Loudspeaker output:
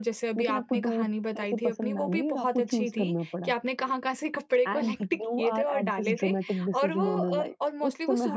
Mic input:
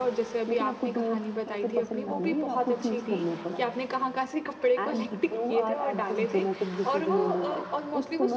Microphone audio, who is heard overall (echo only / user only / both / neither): echo only